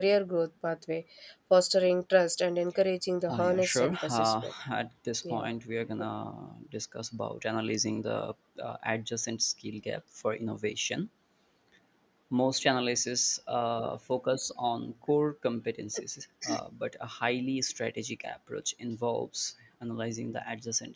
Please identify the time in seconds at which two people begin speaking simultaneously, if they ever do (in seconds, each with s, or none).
3.3 s